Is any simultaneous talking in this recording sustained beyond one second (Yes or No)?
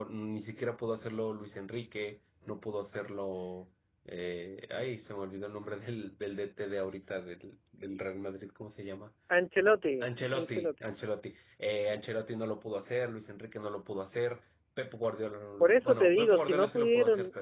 Yes